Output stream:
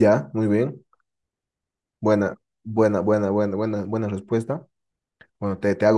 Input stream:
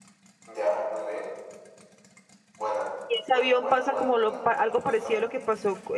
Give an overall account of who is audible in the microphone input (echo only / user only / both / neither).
both